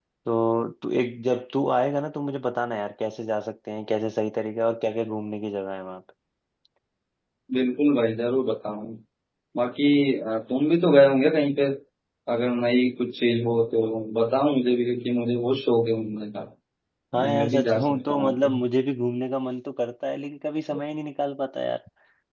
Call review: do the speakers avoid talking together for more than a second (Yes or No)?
No